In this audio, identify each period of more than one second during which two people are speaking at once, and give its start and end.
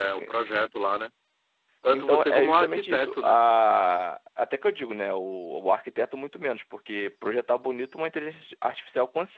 1.9-3.4

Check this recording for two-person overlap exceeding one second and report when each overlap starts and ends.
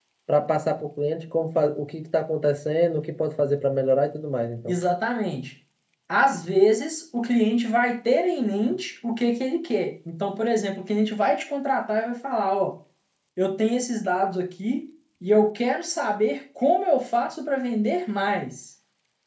none

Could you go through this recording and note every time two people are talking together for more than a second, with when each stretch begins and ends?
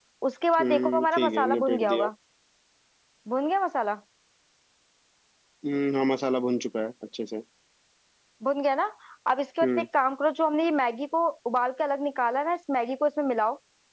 0.6-2.1

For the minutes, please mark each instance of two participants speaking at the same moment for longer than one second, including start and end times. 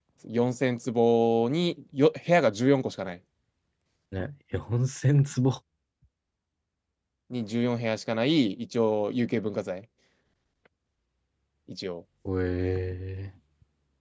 none

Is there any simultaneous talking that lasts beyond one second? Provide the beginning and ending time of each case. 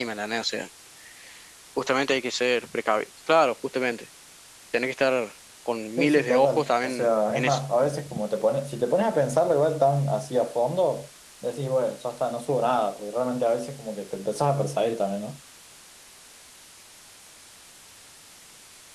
6.0-7.6

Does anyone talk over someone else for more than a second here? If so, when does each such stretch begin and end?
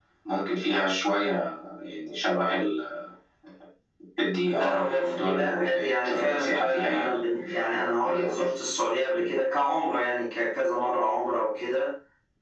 4.4-7.2

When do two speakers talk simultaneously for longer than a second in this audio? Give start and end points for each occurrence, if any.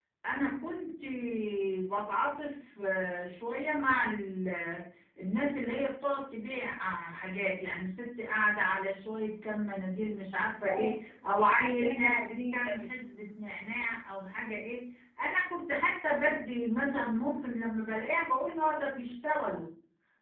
11.5-12.9

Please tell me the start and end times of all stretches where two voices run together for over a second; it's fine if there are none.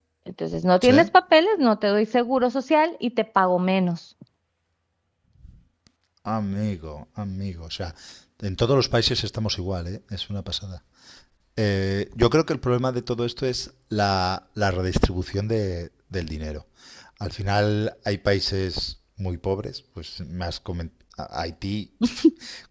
none

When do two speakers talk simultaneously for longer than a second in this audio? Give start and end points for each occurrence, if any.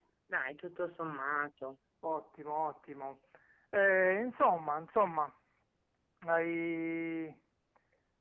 none

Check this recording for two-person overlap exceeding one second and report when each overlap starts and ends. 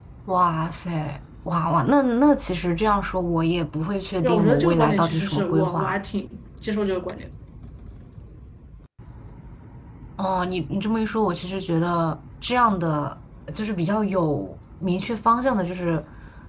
4.2-6.0

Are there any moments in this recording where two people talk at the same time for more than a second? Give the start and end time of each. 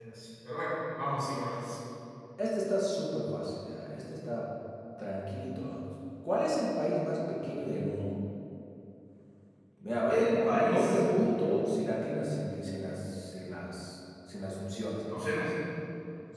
10.1-11.6

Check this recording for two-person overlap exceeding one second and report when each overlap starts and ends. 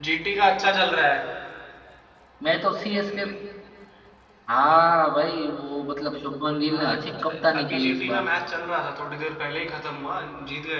6.7-8.3

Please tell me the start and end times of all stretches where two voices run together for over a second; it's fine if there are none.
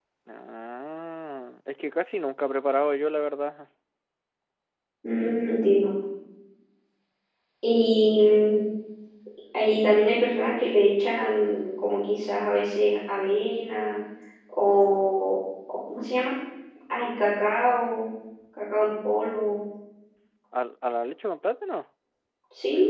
none

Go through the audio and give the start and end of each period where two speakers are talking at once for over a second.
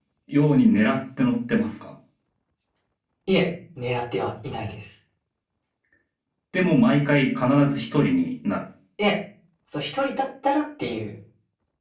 none

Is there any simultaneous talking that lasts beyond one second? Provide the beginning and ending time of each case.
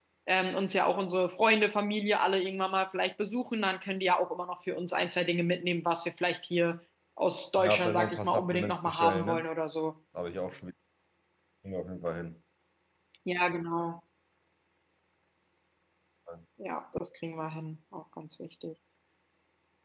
7.6-9.4

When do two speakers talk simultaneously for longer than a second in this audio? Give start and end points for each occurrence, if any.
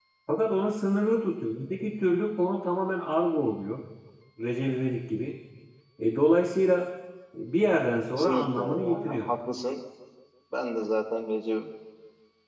8.1-9.3

